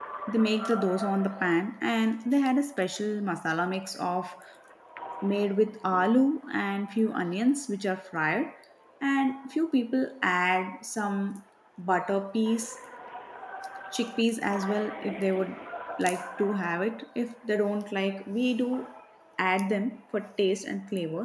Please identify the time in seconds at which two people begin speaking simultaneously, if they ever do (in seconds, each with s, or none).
none